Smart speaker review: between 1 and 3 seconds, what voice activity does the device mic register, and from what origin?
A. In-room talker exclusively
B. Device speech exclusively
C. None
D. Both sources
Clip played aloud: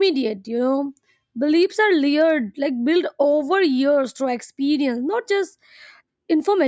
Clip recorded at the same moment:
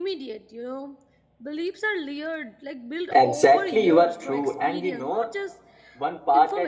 B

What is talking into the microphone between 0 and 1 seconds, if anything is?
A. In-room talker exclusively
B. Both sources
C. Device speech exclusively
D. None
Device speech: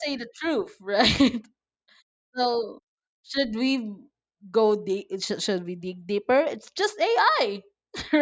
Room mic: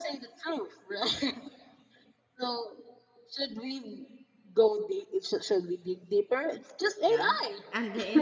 C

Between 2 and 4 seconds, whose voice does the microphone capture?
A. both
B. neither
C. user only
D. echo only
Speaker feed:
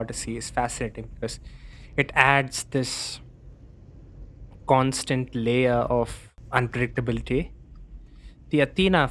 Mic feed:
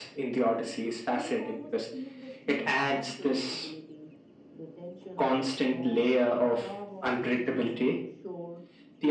A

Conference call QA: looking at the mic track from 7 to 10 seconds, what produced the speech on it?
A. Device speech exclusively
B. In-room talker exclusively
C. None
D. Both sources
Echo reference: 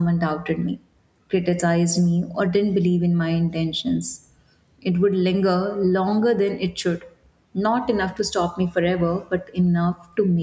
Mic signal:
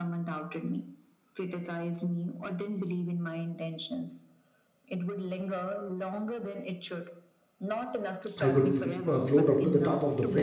D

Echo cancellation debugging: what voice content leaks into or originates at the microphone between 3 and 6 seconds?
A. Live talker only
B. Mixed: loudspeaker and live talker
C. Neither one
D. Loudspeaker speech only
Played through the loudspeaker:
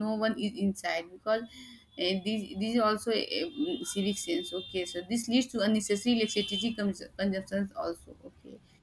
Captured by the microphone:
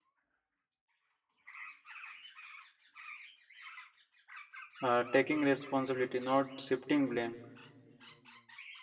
A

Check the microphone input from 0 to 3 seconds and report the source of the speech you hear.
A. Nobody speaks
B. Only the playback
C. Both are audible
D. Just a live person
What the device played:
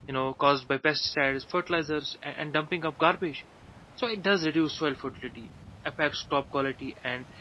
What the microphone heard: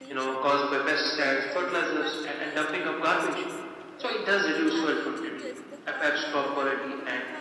C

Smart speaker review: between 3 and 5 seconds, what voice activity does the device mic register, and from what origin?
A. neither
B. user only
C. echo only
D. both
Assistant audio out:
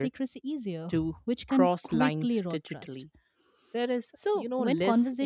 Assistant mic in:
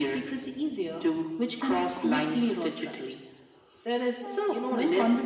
C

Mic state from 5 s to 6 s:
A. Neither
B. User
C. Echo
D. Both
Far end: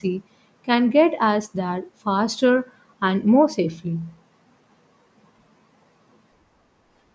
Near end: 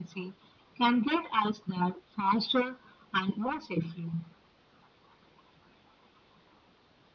A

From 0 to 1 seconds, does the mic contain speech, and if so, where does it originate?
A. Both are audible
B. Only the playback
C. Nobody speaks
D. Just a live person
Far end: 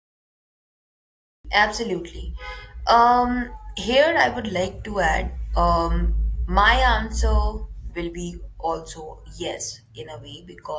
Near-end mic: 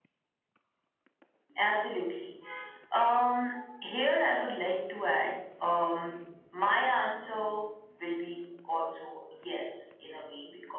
C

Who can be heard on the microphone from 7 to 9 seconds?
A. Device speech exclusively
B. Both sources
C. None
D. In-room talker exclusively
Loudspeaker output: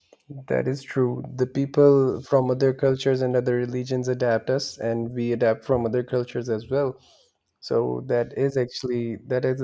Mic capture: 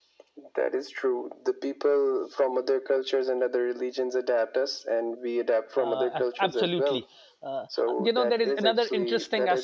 B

